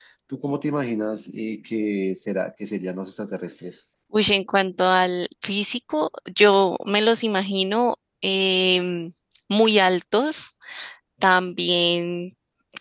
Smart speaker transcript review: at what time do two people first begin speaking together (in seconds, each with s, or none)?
none